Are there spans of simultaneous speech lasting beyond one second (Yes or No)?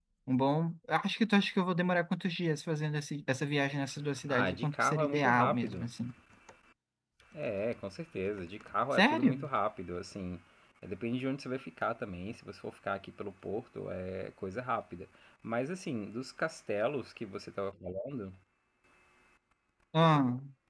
Yes